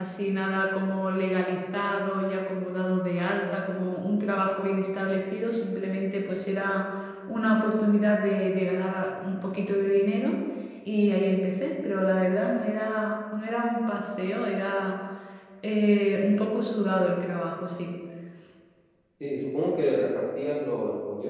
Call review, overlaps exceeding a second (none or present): none